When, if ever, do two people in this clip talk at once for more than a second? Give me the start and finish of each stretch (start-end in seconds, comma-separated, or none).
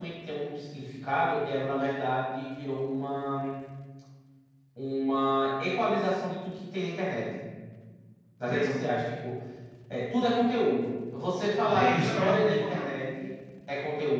11.7-12.9